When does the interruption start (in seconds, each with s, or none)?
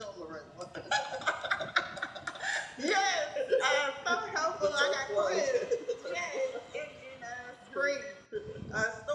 none